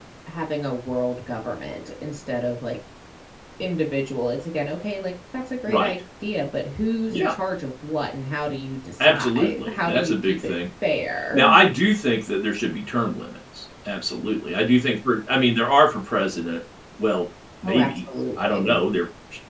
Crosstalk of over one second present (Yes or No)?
Yes